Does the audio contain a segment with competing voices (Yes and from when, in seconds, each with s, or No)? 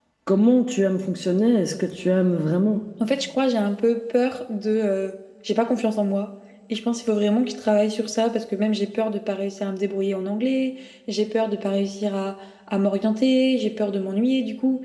No